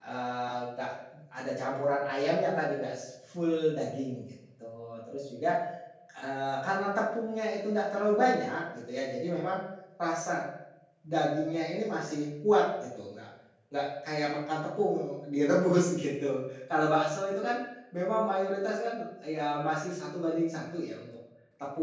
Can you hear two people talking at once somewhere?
No

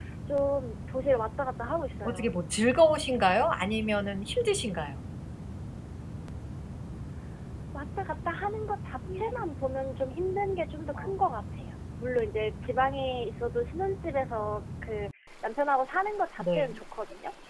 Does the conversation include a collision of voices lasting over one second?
No

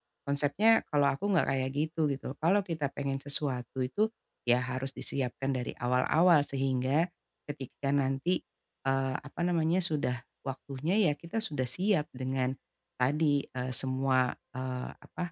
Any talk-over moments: No

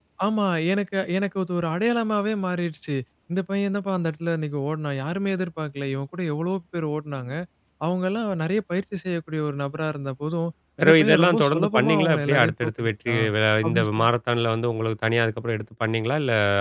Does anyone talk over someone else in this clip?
Yes, from 10.8 s

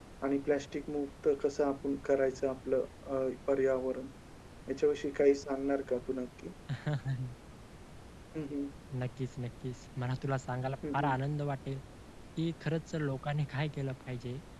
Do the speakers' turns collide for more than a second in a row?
No

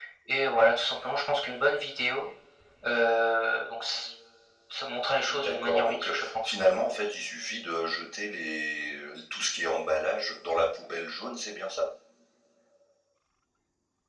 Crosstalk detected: Yes, from 5.3 s

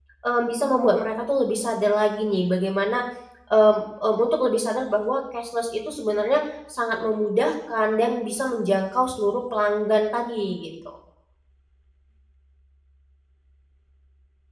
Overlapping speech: No

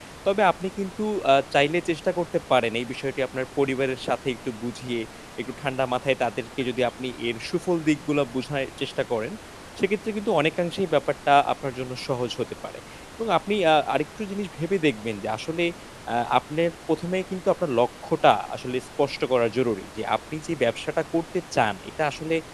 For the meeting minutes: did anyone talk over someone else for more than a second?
No

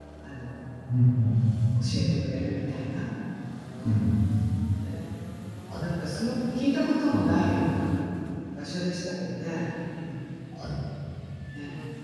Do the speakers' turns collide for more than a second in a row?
No

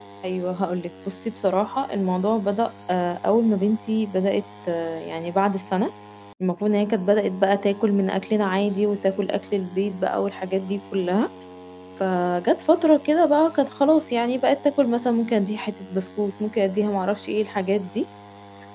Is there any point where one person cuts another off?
No

